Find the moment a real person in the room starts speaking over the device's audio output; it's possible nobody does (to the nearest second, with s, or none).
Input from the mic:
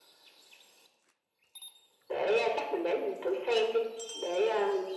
none